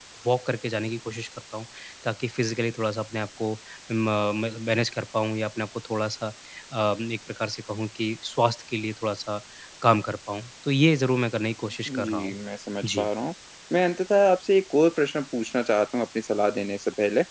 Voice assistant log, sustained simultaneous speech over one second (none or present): none